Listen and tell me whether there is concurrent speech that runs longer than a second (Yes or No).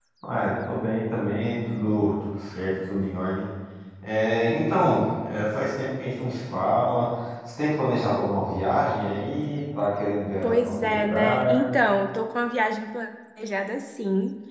Yes